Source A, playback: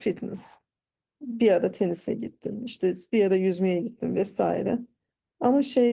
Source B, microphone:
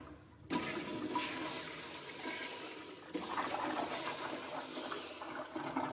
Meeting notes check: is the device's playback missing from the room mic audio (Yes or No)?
Yes